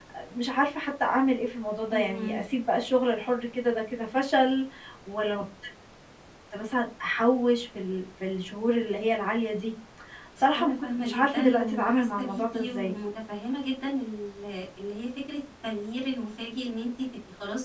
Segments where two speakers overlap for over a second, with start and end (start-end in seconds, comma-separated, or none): 10.5-12.9